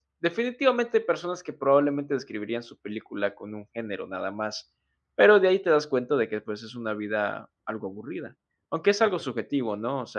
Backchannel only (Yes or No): Yes